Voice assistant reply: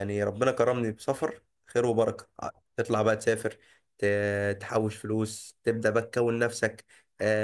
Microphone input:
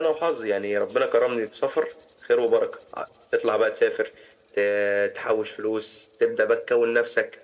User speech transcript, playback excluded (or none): none